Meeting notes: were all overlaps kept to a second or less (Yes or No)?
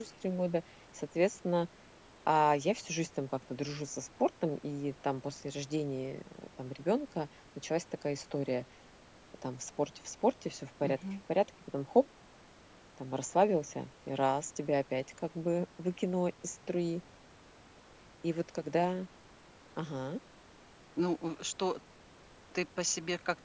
Yes